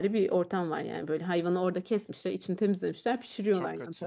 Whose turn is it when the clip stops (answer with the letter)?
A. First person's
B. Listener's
A